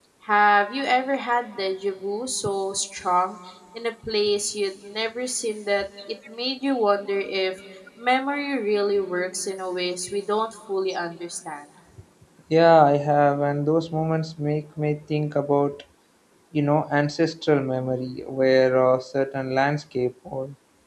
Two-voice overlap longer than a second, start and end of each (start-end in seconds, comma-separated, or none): none